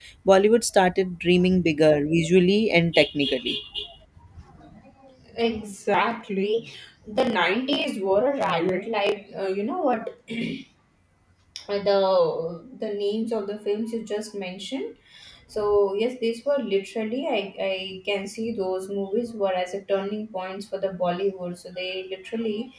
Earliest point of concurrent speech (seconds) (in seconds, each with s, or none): none